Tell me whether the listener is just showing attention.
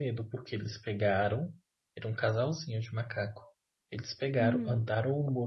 Yes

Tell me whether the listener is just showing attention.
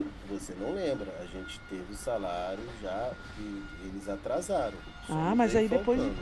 No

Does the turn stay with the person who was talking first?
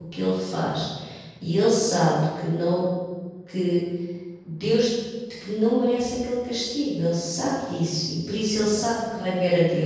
Yes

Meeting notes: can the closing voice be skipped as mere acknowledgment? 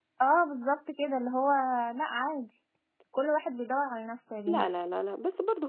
No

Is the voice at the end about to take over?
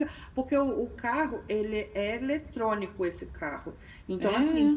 No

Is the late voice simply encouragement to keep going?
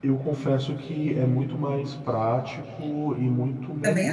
Yes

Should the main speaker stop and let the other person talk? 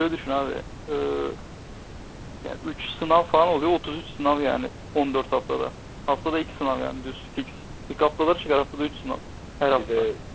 Yes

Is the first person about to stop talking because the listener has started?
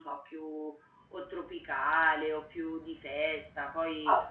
Yes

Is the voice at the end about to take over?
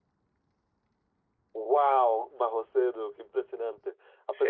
No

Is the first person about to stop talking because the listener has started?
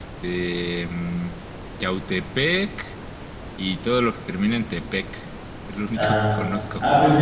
Yes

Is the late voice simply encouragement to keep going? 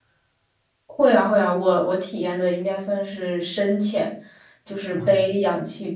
Yes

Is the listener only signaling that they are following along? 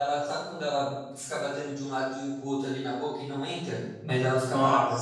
Yes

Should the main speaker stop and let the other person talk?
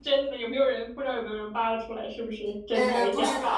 Yes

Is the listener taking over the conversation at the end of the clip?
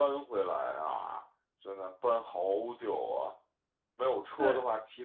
No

